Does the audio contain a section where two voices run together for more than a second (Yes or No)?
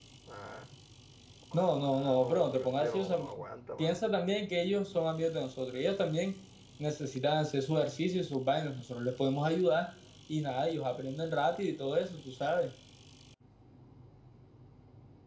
Yes